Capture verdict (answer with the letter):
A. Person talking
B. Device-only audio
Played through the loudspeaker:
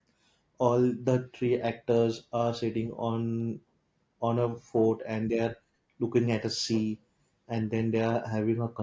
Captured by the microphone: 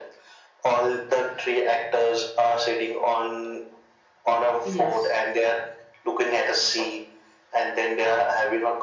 A